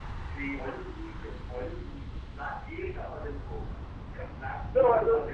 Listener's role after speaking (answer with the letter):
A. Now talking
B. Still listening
A